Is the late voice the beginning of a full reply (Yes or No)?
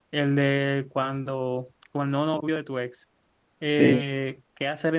No